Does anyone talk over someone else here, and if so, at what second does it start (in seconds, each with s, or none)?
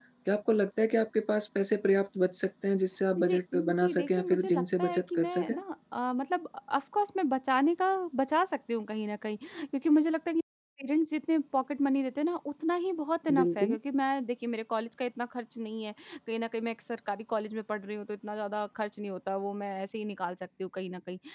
3.2 s